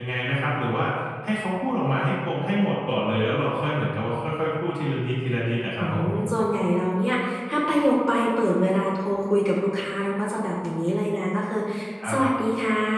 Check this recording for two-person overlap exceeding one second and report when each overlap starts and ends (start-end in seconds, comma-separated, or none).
none